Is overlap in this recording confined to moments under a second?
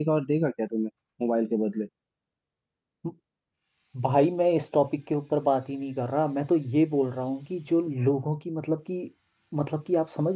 Yes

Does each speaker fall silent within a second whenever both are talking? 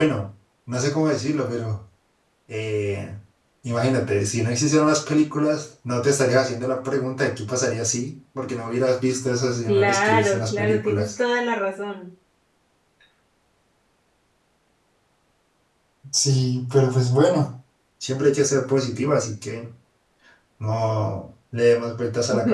No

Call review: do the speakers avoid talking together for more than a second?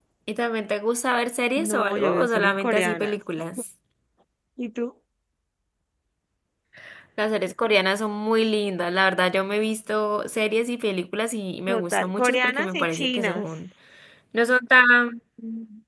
No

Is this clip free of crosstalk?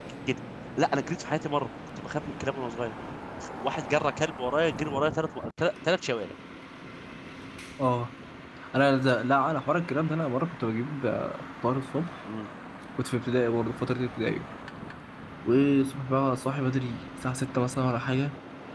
Yes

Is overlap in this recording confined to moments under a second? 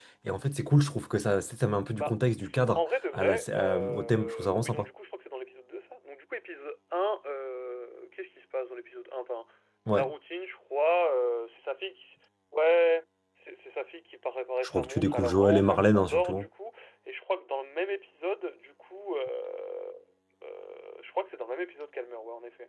No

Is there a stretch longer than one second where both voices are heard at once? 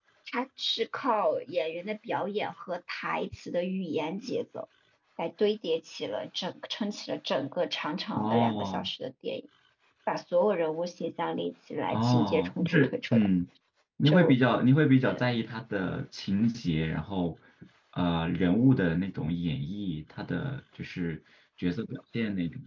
Yes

